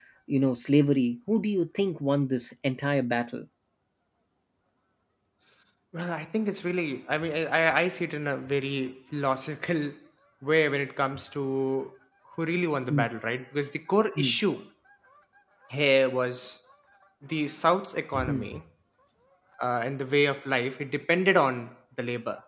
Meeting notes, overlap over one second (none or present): none